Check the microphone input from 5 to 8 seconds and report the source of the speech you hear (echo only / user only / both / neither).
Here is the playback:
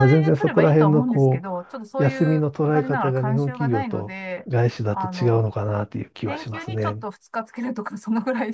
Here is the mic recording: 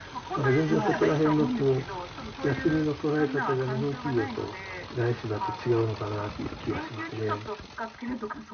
echo only